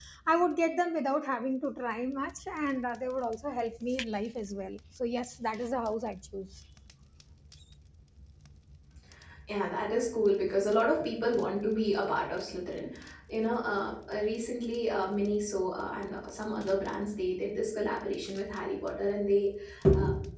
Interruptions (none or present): none